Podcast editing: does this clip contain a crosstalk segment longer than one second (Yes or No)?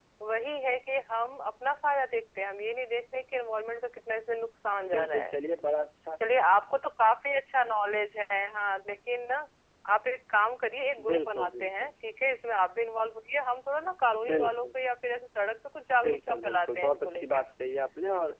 Yes